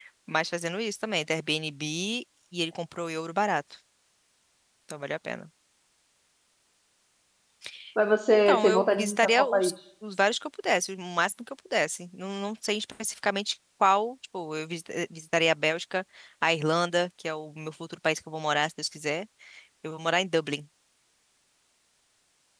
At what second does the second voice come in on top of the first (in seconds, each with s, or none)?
8.5 s